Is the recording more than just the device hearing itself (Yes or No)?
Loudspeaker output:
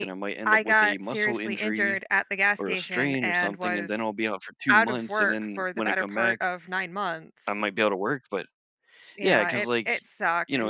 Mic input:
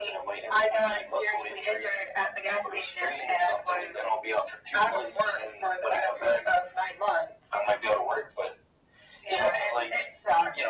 No